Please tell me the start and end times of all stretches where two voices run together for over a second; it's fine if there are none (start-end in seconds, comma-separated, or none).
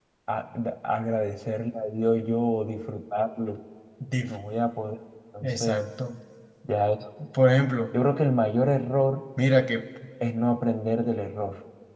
none